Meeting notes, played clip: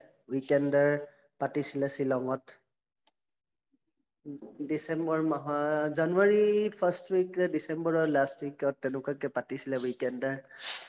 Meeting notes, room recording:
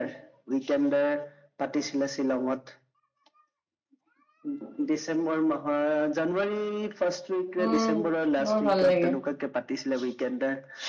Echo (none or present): present